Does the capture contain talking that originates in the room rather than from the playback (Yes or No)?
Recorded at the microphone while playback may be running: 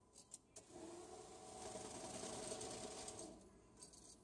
No